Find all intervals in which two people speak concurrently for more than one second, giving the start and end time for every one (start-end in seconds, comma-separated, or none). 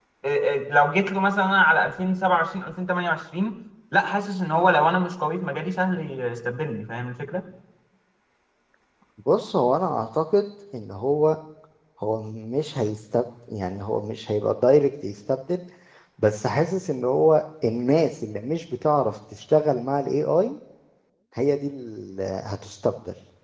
none